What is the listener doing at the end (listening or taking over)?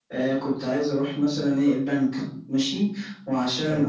listening